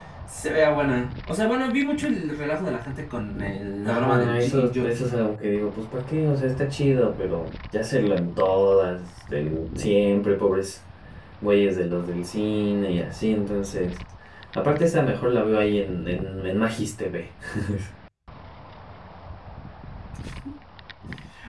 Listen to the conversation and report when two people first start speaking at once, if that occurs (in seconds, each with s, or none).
3.8 s